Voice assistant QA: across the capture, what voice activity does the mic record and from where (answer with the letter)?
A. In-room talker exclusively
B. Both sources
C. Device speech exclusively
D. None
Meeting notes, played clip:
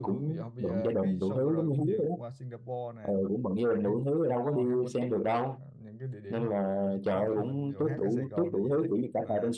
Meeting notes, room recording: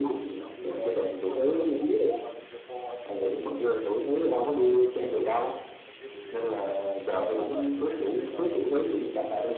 B